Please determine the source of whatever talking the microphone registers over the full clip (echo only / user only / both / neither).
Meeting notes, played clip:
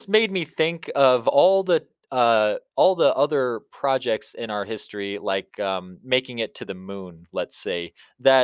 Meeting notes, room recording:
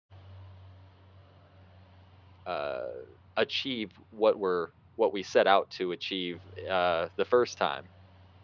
user only